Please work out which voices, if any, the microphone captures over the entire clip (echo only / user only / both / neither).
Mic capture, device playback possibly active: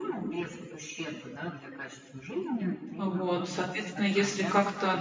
both